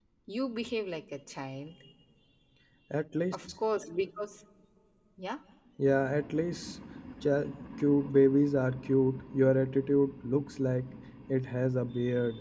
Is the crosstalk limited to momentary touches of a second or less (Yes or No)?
Yes